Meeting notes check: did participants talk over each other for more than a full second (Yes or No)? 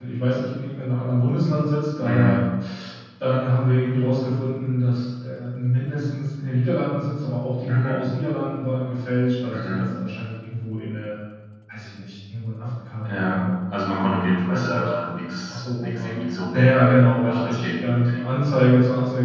Yes